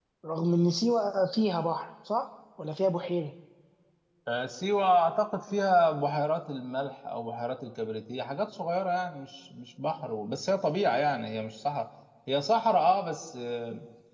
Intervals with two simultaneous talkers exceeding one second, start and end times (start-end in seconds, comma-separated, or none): none